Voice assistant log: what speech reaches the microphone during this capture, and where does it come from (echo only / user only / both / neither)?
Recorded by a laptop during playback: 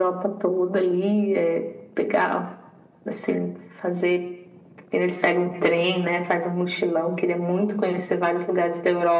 echo only